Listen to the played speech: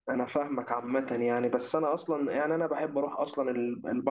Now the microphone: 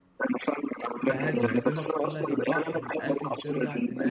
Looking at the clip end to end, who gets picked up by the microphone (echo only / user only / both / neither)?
both